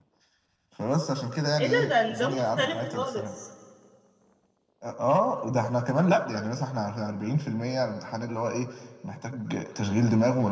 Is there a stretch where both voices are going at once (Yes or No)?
Yes